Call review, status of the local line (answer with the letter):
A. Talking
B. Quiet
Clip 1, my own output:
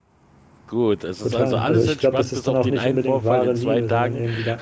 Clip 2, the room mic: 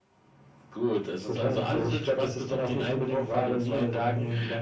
B